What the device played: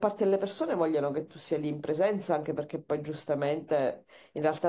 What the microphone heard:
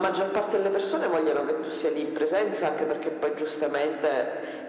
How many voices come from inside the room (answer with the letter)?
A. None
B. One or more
A